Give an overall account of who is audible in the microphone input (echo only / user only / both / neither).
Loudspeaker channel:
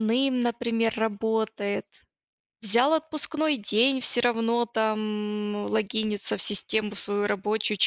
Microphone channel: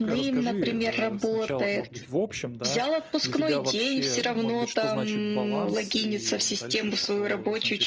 both